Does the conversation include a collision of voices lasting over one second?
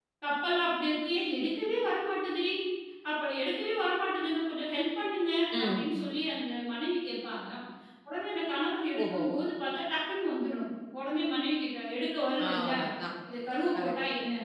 No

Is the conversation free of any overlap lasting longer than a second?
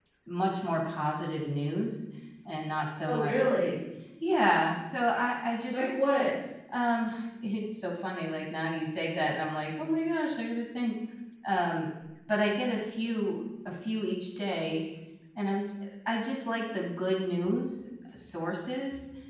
Yes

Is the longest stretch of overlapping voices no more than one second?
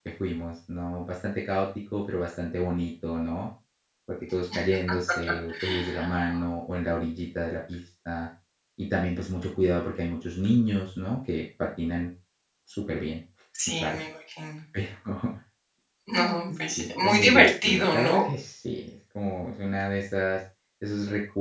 No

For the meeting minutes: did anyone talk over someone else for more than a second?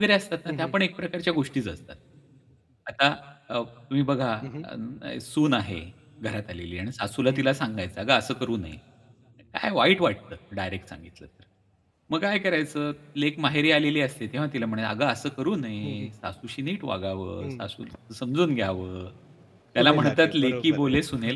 Yes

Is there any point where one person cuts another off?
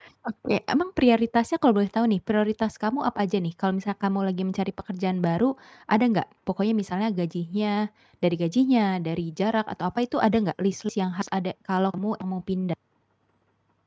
No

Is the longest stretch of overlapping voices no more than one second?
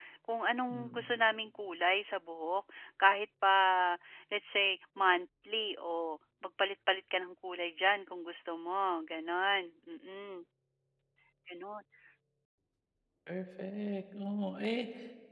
Yes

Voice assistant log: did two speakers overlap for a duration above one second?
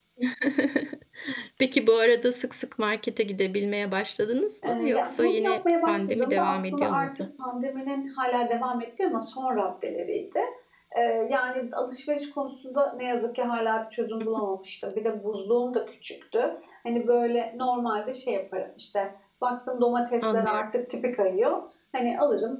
Yes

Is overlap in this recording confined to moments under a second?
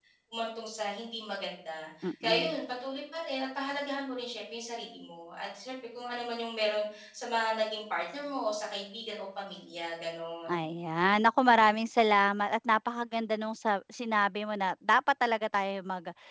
Yes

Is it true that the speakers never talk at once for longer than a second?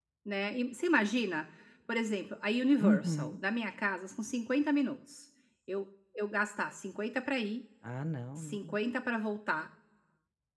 Yes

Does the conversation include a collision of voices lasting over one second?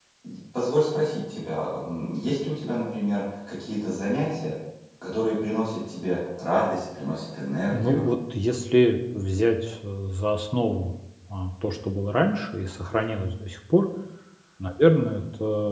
No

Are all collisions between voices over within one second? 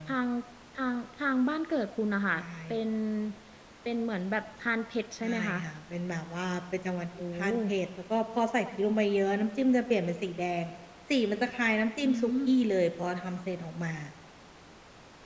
Yes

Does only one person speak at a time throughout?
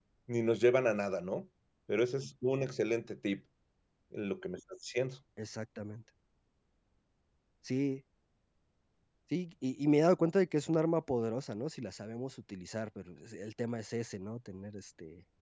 Yes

